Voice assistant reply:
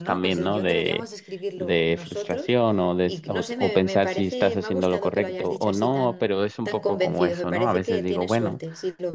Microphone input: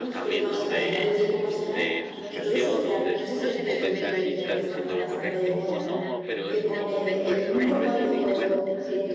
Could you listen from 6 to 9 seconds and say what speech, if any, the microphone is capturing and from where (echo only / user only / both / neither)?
both